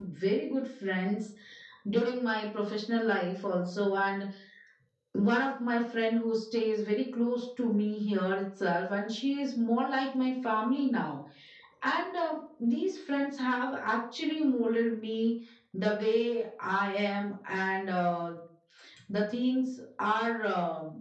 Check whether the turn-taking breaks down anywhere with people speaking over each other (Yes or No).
No